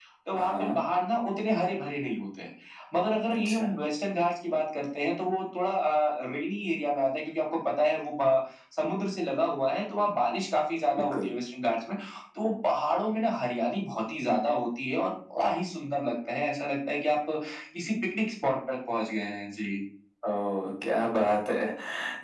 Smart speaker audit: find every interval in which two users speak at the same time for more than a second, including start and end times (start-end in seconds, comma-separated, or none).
none